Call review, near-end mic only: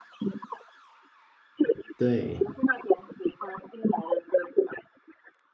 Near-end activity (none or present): present